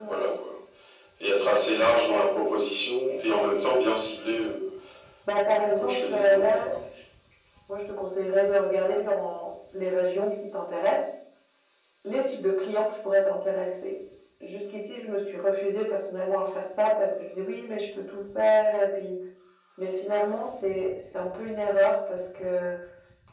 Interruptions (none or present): present